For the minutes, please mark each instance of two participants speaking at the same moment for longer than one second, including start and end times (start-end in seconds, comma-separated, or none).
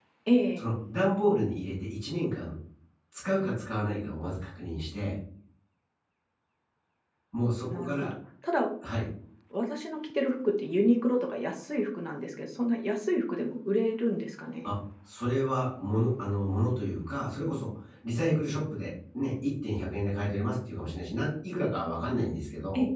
none